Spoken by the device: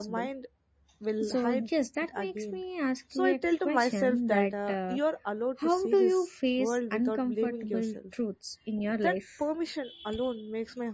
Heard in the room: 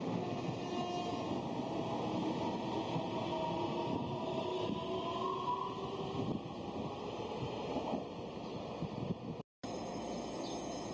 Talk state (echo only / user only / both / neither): neither